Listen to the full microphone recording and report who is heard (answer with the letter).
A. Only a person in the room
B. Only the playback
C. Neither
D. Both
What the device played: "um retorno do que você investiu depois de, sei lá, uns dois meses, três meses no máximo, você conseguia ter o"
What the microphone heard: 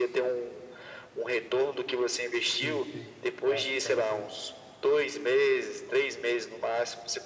D